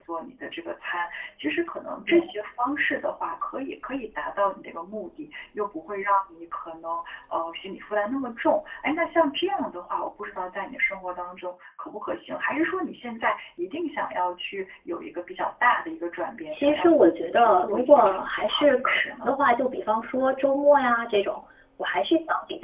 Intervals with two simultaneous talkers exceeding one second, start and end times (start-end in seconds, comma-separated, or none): 16.5-19.3